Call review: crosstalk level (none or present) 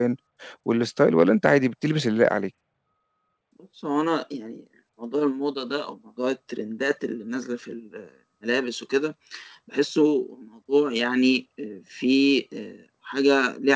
none